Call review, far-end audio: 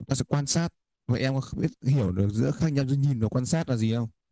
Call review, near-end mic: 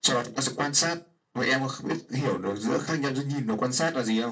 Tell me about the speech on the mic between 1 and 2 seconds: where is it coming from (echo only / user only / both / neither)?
echo only